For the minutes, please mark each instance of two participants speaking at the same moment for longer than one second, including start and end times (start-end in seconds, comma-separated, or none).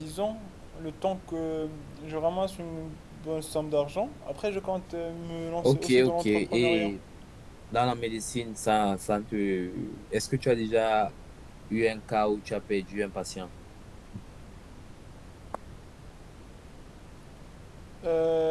5.6-6.9